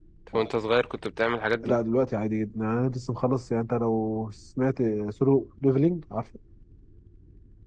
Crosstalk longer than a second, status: none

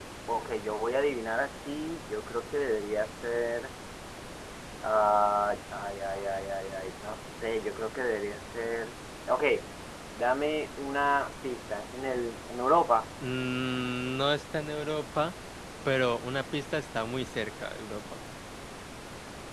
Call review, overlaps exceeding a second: none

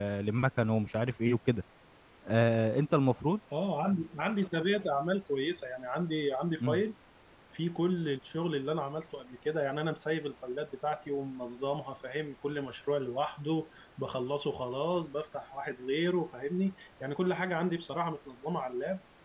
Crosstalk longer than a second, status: none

